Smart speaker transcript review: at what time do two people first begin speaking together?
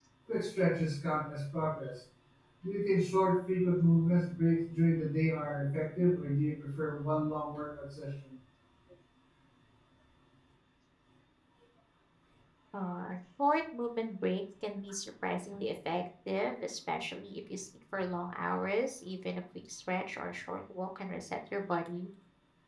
none

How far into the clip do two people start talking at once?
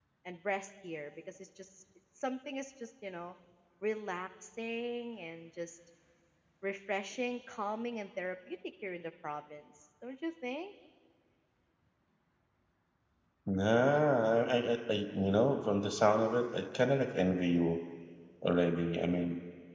none

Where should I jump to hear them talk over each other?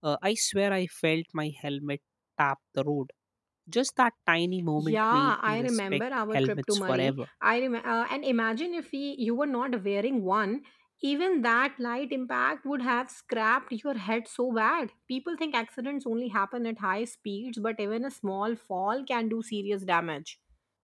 5 s

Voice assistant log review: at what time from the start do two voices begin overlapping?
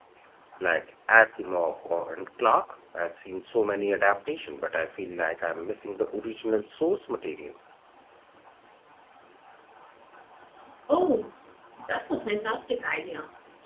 none

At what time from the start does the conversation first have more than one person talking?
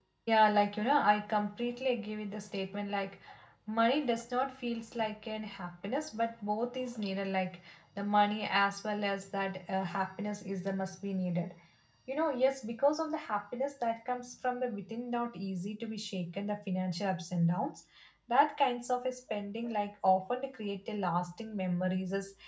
none

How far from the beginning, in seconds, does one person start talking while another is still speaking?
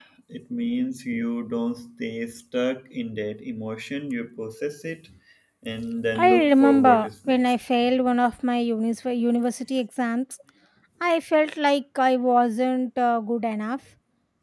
6 s

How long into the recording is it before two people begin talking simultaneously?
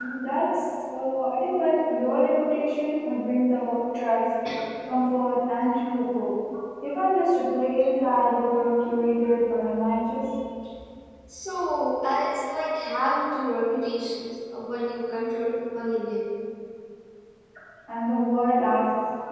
none

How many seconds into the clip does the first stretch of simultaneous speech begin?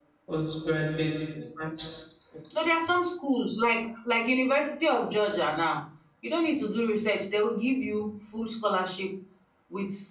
none

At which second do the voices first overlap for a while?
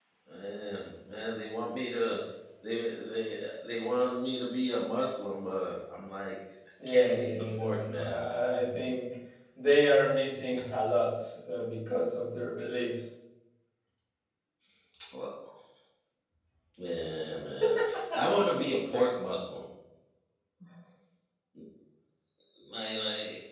7 s

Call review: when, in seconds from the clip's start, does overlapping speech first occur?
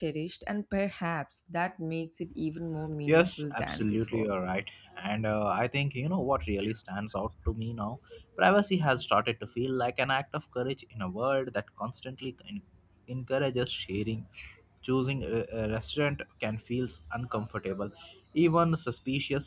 3 s

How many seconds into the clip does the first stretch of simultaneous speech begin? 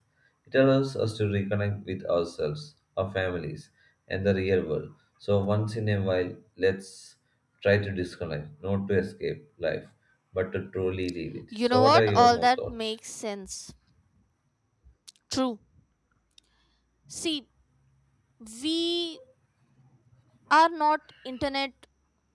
12 s

